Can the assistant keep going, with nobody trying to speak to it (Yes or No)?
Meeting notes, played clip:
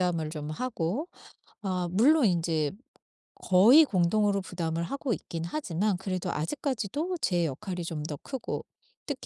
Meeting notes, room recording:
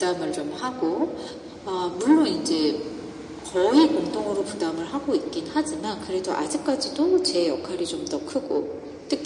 Yes